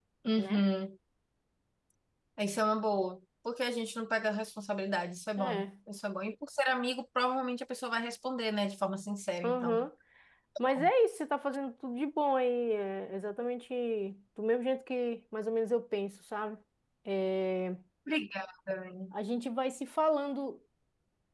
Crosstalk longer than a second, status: none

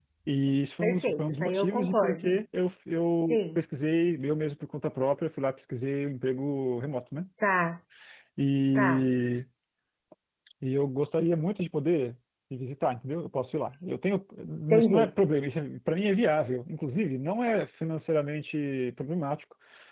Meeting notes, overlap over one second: present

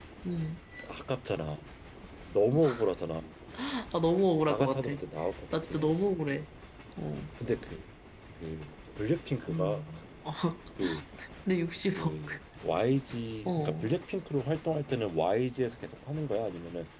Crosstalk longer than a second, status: none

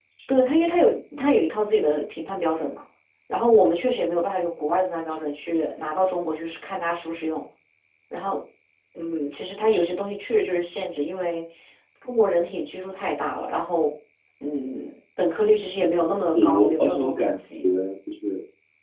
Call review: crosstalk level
present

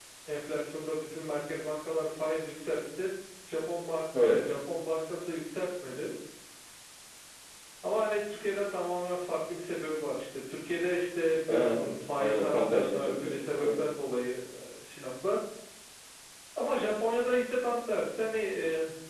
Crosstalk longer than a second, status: present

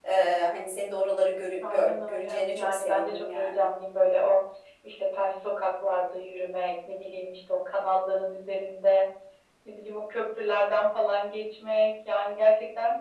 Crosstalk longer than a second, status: present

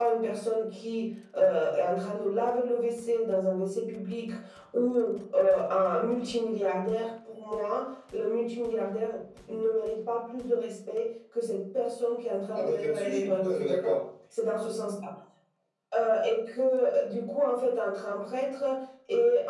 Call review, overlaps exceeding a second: present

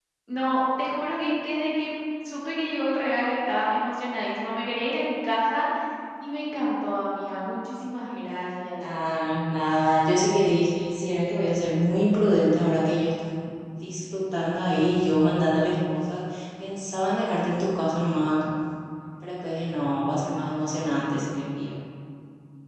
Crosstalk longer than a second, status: none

